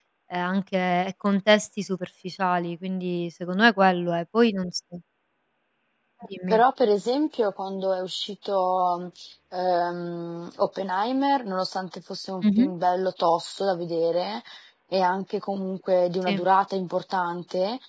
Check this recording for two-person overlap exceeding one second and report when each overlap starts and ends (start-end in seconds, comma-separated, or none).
none